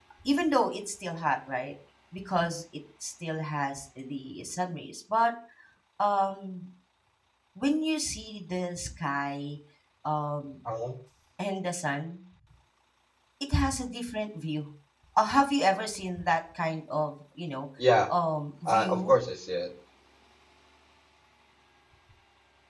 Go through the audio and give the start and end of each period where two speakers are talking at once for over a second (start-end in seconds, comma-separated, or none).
none